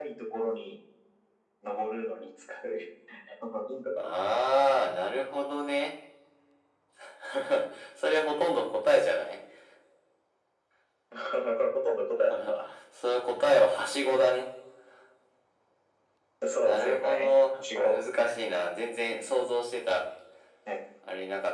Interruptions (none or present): present